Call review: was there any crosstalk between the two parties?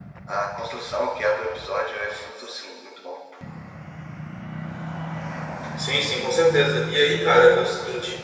No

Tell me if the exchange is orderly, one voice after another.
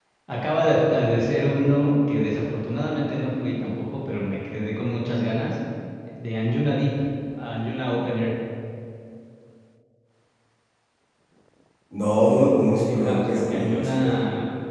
No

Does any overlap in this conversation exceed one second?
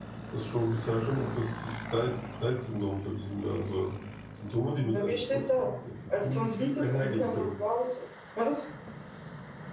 Yes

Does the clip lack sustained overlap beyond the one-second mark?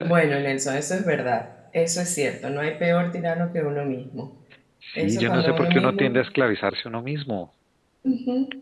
No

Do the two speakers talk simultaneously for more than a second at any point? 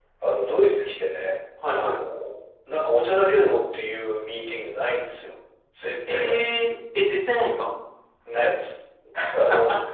No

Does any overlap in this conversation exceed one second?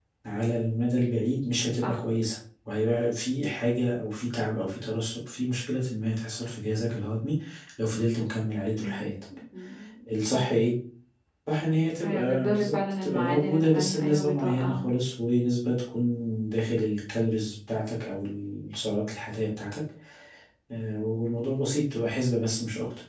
Yes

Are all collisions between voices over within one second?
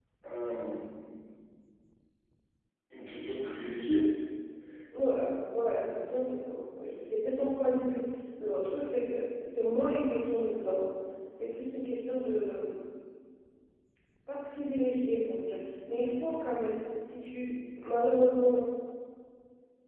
Yes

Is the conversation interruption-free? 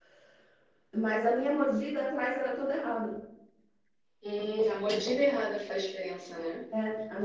Yes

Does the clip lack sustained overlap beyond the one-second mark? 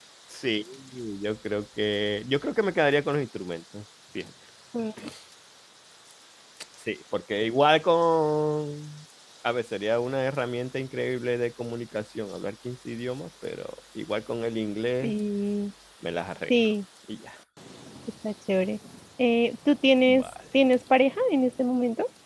Yes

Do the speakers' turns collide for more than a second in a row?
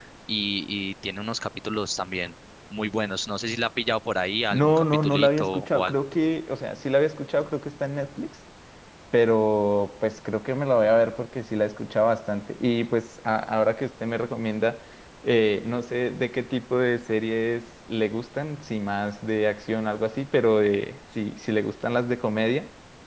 Yes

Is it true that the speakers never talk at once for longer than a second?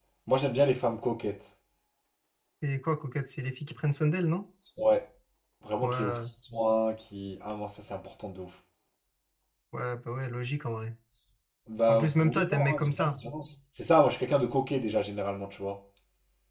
No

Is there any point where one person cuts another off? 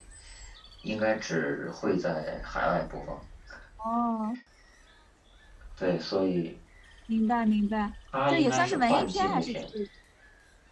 Yes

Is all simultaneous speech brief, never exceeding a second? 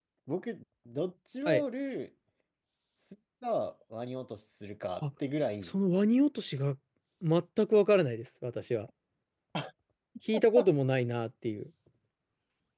Yes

